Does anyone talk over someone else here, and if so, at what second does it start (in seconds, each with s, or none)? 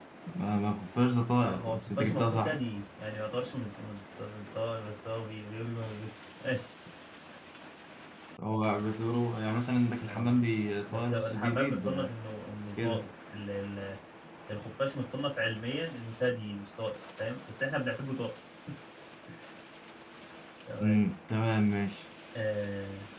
1.4 s